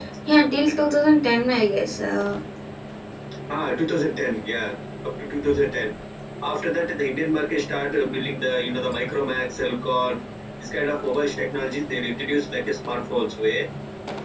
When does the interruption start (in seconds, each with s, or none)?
none